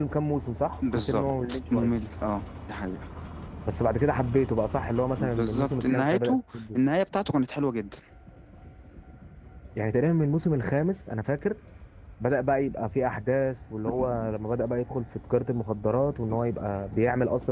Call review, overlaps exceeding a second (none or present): present